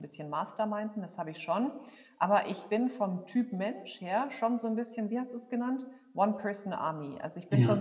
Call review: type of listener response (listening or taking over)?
listening